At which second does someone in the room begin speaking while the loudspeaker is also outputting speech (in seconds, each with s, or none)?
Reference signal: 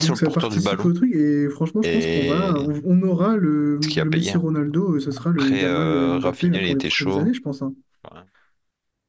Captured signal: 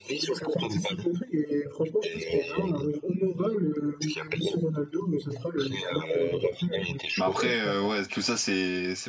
7.2 s